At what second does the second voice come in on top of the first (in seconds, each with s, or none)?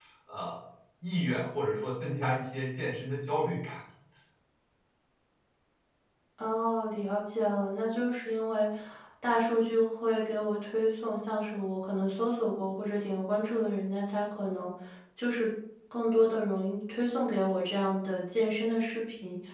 none